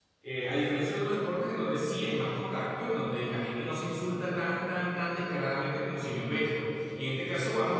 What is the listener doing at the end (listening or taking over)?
listening